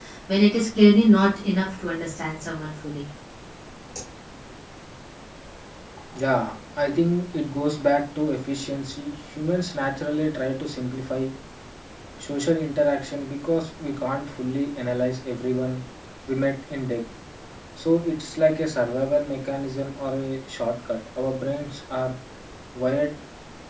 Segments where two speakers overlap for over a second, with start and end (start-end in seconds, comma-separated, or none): none